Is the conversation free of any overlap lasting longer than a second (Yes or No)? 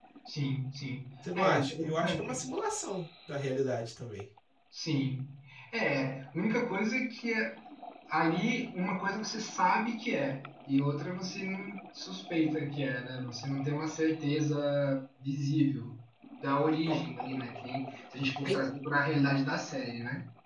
No